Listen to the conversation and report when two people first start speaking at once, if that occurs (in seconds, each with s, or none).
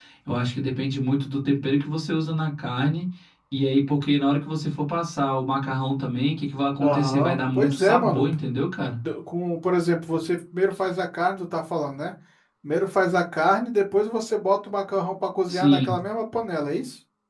6.8 s